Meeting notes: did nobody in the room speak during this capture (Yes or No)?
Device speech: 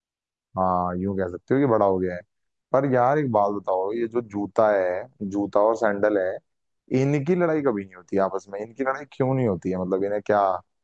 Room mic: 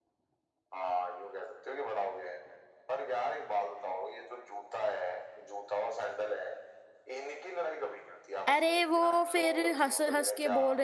No